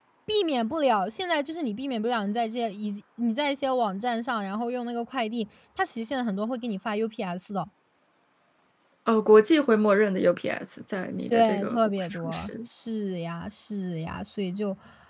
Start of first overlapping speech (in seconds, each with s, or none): 11.3 s